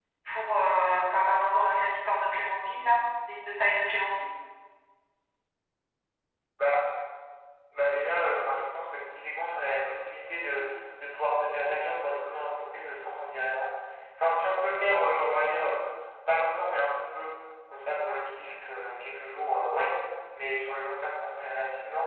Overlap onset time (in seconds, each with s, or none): none